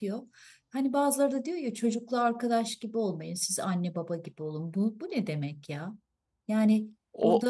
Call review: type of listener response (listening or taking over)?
listening